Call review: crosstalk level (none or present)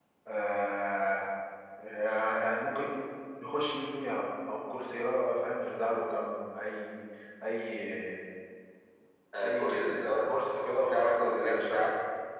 present